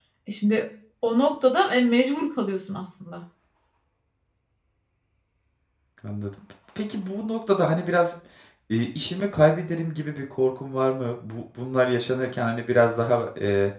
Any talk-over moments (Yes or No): No